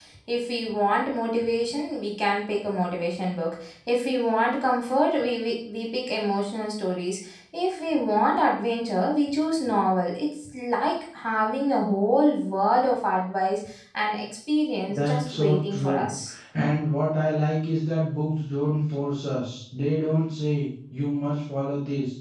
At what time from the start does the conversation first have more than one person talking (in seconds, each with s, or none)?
14.9 s